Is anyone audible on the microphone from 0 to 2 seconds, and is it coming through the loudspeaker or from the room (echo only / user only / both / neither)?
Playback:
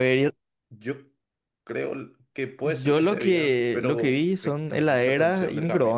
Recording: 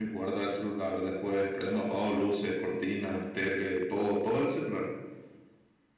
user only